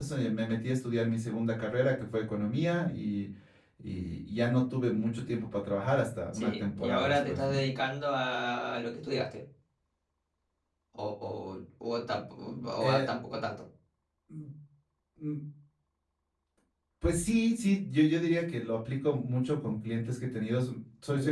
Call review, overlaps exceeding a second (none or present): present